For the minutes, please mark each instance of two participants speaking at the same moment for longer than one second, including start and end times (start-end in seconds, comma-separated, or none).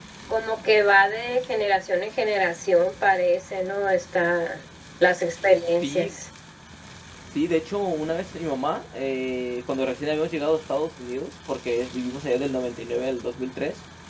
none